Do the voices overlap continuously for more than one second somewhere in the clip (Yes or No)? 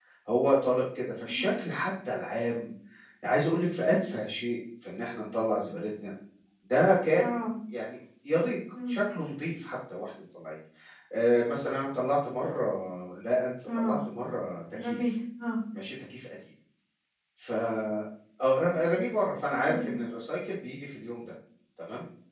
No